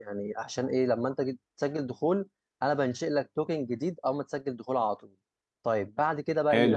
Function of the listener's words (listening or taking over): taking over